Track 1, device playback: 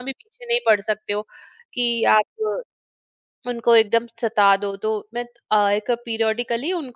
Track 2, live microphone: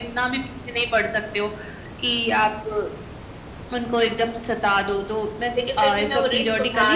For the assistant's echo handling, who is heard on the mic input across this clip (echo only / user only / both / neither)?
both